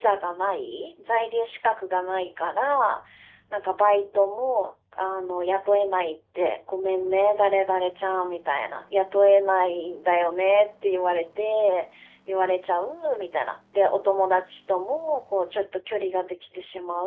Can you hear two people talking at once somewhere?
No

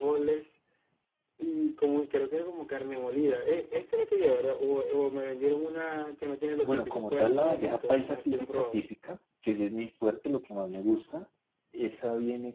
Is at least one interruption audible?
Yes, from 6.6 s

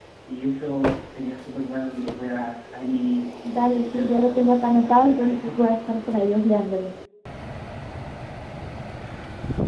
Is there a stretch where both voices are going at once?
Yes, from 3.7 s

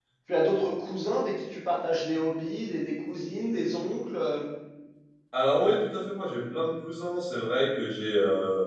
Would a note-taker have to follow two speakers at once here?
No

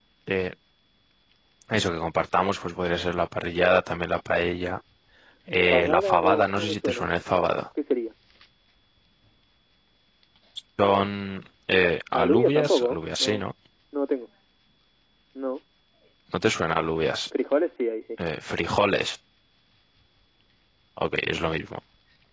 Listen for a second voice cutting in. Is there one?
Yes, from 5.7 s

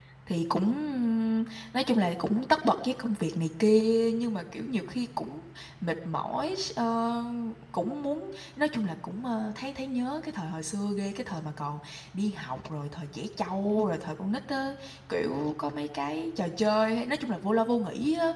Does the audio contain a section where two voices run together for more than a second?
No

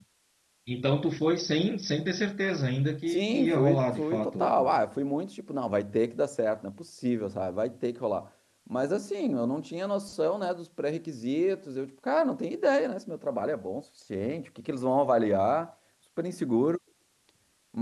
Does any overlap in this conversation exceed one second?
Yes, from 3.1 s

